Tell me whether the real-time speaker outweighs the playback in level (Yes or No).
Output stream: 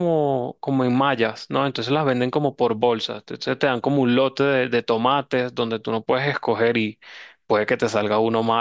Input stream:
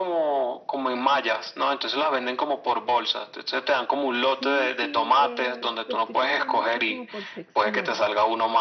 No